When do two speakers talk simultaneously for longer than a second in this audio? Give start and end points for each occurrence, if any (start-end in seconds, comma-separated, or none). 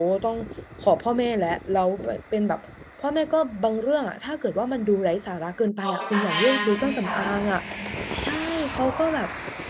5.8-7.2